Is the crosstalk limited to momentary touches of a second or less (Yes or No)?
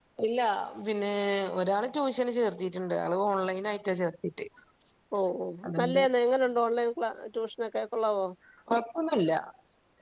Yes